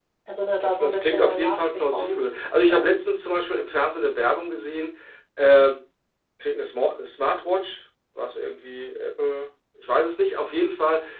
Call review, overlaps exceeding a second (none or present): present